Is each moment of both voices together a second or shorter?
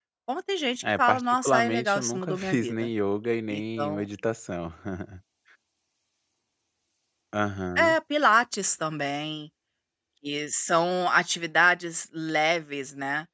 No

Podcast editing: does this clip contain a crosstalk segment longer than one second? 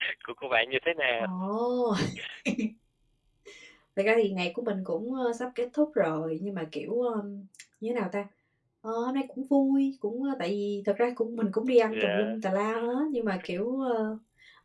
No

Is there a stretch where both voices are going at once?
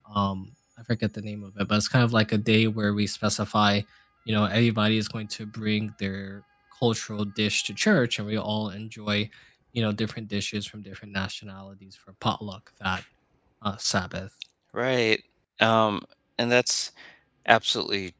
No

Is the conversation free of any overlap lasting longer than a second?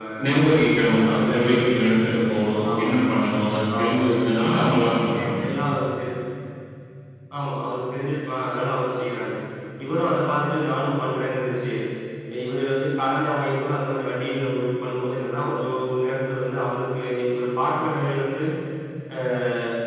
No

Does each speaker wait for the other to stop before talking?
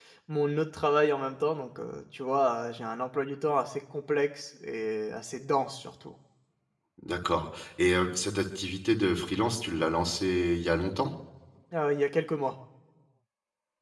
Yes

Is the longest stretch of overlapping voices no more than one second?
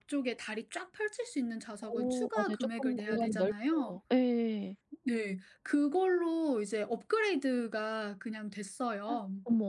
No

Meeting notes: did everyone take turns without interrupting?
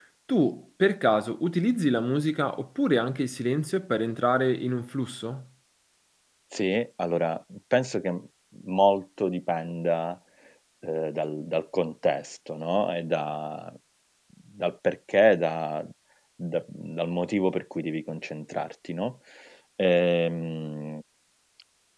Yes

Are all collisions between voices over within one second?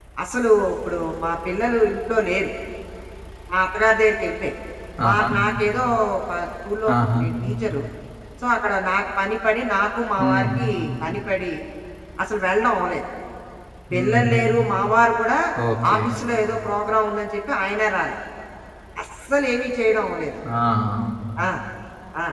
Yes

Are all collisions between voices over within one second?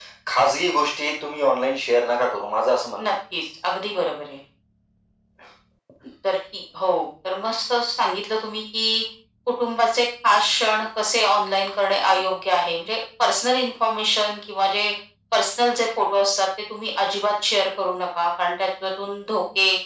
Yes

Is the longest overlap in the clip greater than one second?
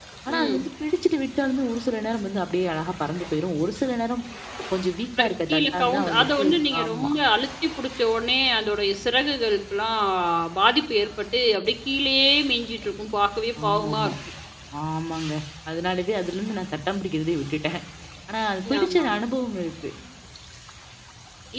Yes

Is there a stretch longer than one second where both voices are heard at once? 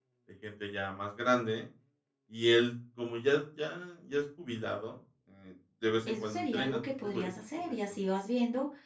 Yes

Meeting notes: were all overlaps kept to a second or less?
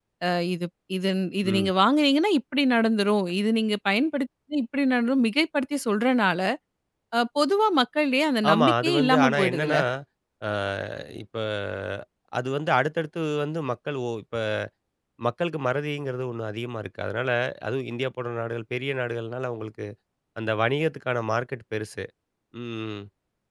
No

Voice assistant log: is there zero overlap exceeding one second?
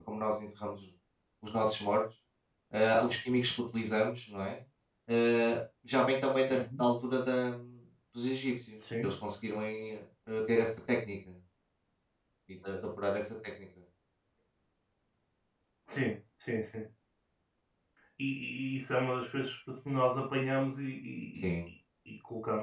Yes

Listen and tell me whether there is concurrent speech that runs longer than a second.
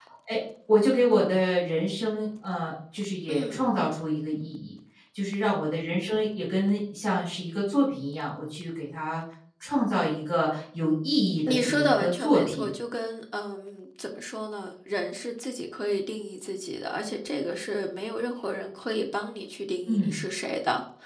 Yes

